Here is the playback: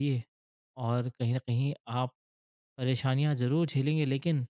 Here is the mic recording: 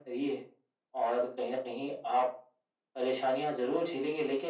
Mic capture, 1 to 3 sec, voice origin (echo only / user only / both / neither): echo only